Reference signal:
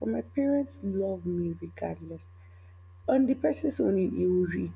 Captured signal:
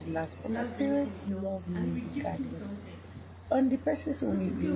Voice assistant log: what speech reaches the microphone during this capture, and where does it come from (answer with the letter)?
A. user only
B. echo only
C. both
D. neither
C